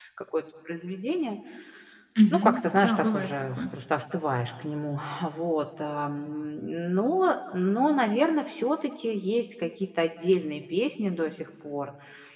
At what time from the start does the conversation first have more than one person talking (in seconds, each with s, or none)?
2.3 s